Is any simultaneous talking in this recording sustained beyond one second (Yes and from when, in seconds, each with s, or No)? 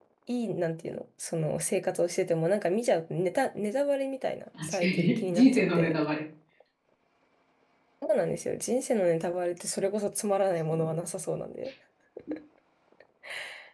Yes, from 4.6 s